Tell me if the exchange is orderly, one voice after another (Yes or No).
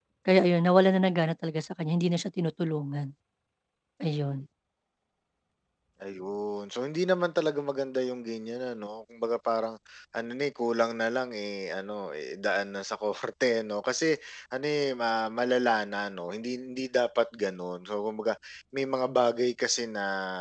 Yes